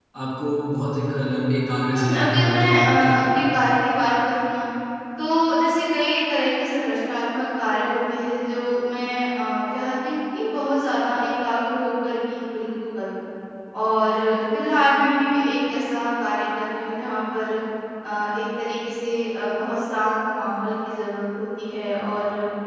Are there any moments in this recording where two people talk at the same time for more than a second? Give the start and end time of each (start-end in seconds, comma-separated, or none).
1.9-3.2